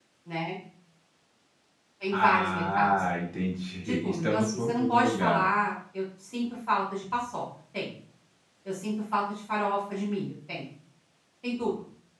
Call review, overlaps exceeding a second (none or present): present